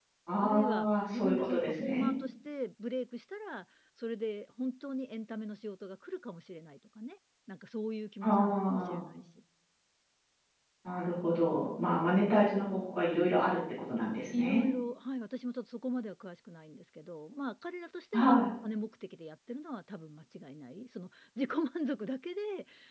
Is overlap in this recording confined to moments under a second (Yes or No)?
No